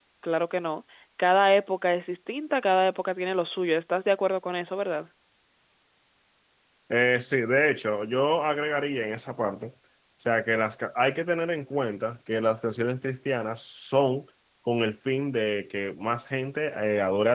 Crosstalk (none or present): none